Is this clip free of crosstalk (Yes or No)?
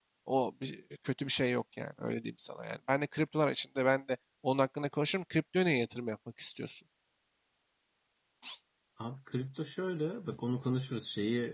Yes